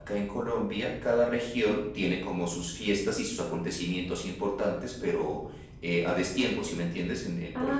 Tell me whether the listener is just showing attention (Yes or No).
No